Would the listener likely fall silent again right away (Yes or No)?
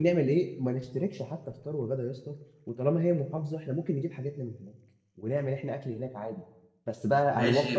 No